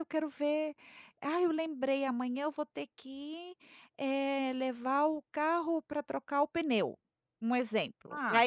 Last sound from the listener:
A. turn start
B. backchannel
B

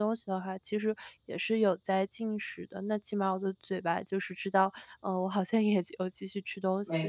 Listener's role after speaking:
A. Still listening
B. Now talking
B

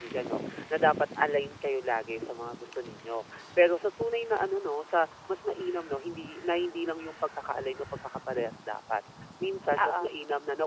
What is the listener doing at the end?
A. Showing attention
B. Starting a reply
A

